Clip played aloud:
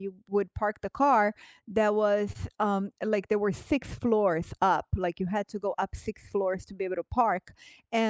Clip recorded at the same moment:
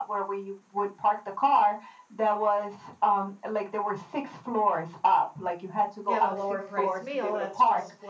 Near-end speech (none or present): present